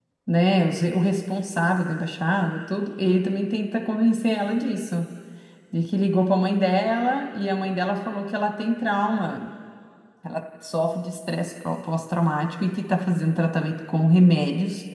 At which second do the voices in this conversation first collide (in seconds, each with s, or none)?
none